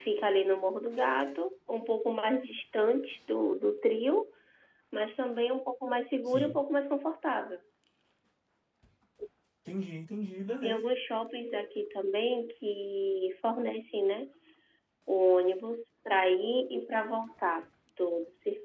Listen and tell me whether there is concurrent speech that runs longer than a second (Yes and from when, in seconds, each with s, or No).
No